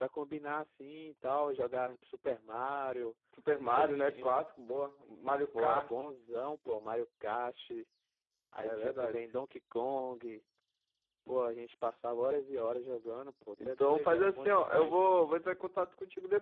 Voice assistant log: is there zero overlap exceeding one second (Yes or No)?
No